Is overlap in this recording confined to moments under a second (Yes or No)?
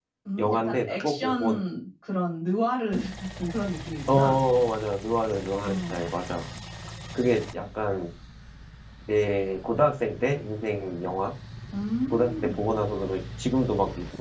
No